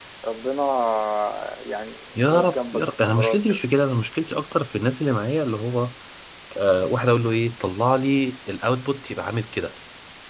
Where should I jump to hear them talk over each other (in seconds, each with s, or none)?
2.1 s